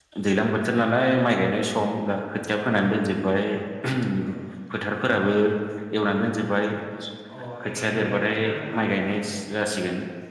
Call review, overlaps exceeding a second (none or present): present